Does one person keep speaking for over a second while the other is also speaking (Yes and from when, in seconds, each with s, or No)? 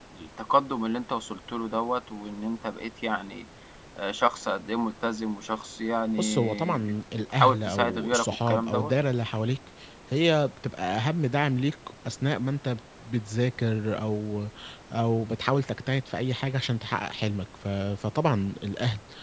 Yes, from 6.2 s